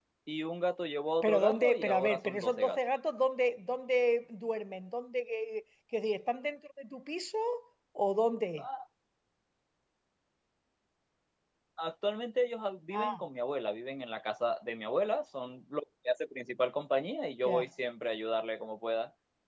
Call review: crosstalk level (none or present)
present